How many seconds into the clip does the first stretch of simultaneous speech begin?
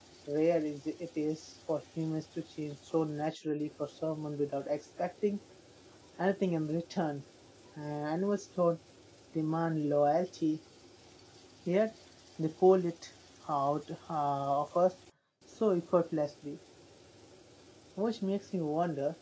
none

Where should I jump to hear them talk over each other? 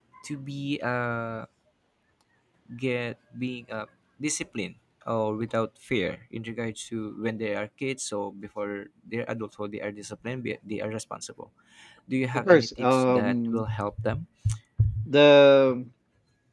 12.3 s

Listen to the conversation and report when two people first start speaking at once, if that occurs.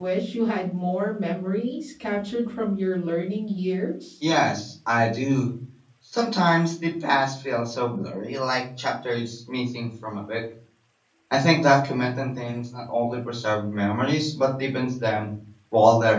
none

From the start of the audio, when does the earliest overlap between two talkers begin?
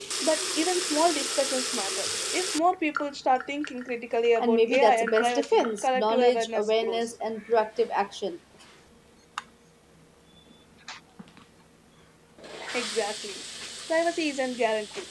4.4 s

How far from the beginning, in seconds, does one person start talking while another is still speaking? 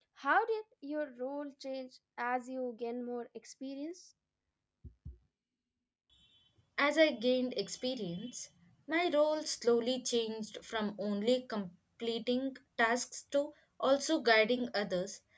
none

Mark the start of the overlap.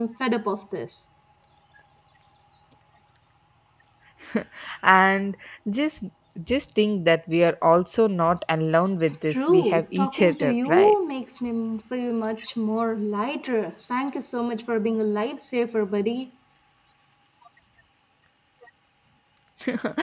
9.3 s

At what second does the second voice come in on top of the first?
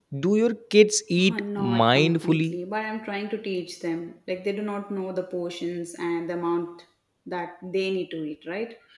1.2 s

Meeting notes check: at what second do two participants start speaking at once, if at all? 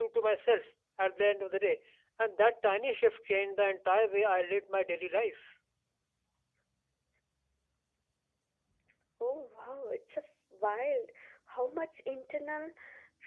none

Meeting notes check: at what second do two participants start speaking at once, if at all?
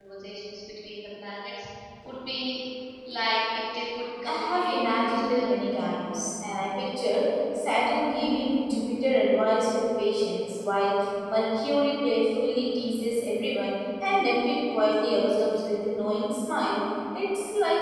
4.2 s

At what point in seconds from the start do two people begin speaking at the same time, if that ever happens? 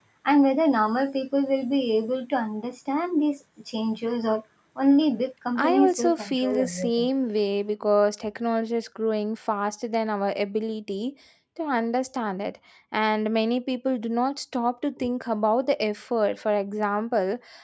5.6 s

